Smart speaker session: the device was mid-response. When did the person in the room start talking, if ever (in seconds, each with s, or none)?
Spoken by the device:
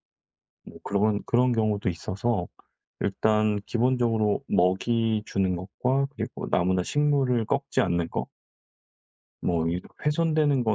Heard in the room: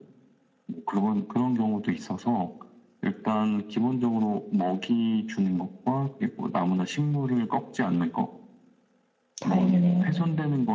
9.4 s